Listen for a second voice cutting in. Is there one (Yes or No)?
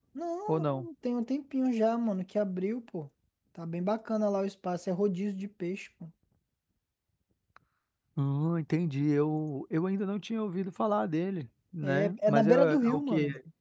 Yes